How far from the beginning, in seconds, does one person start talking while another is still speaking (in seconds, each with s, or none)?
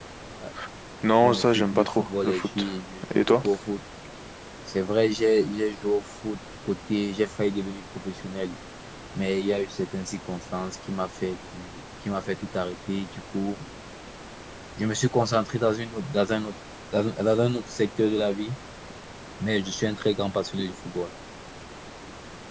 1.2 s